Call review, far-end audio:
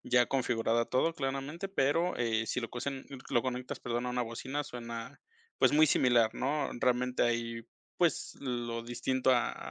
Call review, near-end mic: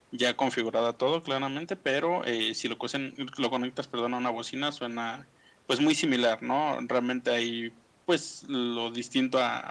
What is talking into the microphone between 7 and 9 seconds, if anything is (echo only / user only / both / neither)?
echo only